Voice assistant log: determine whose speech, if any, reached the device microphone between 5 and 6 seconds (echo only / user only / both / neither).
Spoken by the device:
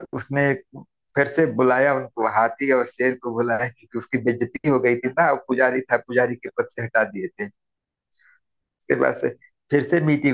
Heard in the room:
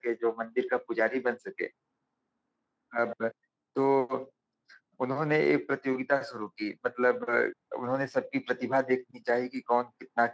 user only